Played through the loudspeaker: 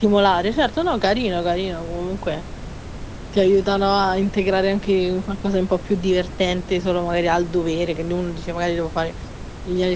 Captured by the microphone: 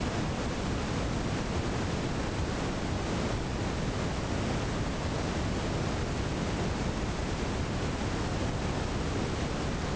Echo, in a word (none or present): none